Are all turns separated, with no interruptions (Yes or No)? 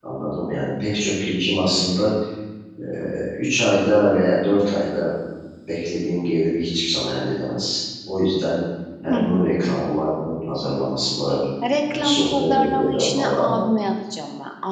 No